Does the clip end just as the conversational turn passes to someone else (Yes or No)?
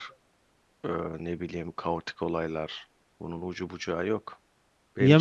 No